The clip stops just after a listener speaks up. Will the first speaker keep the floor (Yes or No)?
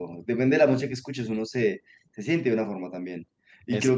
Yes